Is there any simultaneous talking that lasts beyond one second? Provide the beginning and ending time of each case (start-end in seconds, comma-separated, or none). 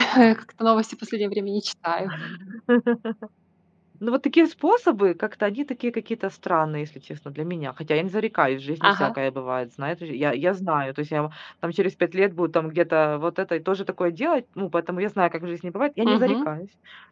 none